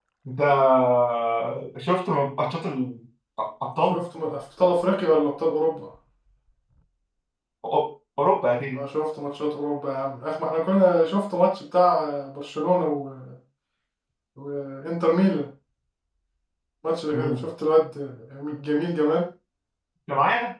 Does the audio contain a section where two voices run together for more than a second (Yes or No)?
No